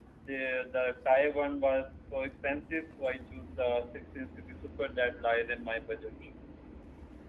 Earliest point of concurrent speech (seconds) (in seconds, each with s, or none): none